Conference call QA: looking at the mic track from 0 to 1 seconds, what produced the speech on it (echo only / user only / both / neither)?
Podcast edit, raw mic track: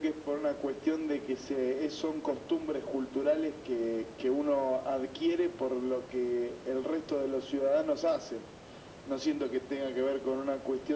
echo only